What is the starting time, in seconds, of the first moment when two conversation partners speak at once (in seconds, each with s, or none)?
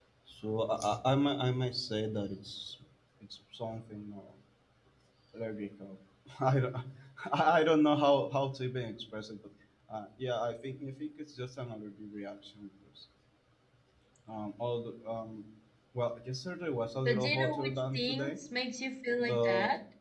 17.1 s